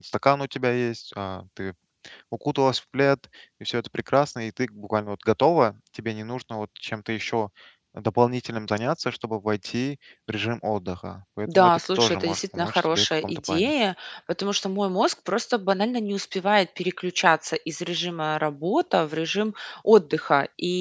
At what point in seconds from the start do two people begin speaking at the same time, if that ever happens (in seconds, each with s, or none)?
11.5 s